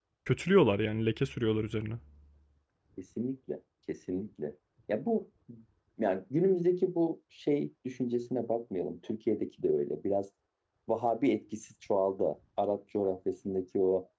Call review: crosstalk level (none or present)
none